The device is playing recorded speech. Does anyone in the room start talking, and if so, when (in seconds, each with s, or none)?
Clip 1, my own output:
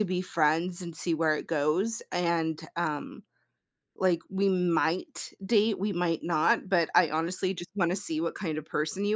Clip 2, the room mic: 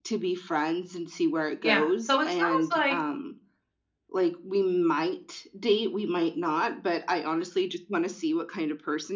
1.6 s